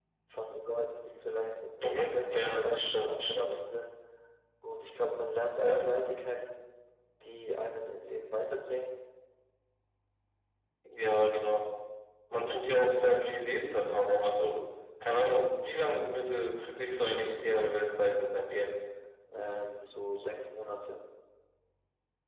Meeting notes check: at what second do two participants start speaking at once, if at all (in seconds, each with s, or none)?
1.8 s